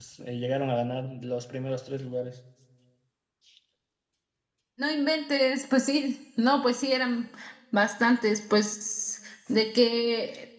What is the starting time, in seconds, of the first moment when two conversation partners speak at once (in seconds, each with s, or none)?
none